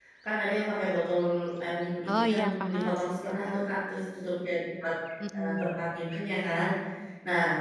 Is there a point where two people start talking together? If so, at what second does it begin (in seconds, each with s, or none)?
2.0 s